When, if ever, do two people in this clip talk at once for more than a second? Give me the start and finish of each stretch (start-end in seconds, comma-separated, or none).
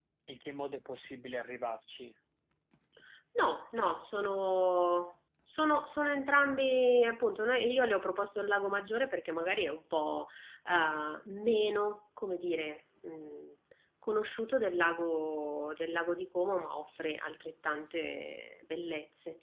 none